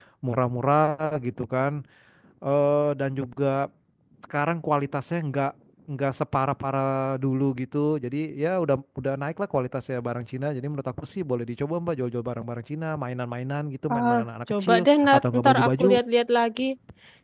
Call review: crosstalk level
present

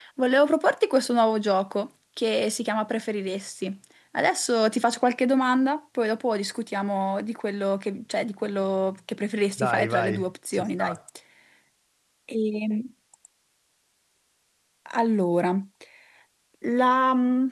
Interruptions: present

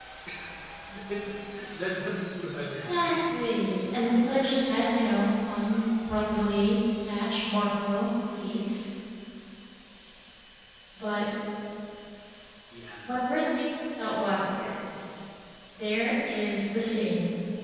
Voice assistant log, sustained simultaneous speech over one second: none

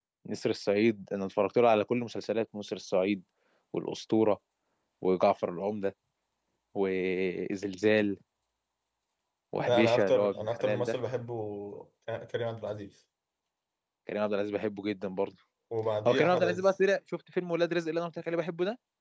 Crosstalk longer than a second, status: present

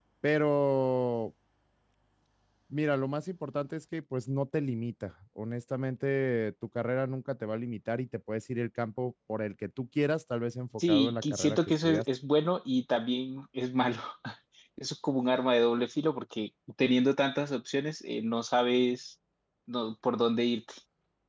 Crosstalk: present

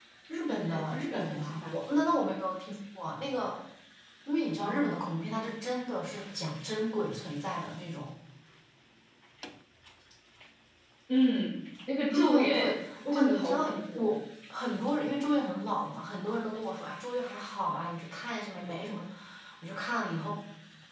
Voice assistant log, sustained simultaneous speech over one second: present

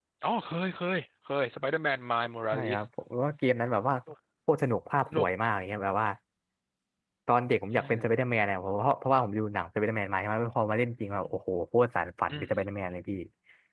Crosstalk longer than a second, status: none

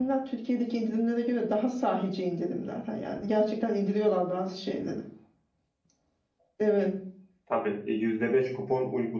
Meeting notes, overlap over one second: none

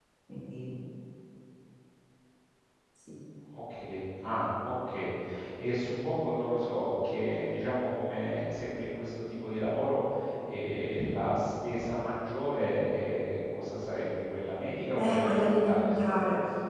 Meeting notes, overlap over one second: present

